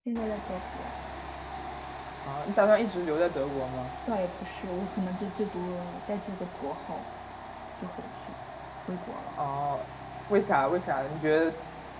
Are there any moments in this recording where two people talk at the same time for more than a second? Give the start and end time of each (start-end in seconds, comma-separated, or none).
none